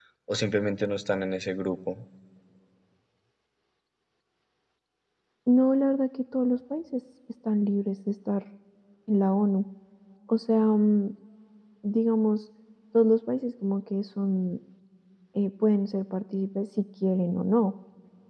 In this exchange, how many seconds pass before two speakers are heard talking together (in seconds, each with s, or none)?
none